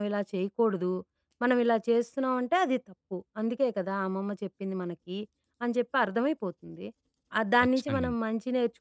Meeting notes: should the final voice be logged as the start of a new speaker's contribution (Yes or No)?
No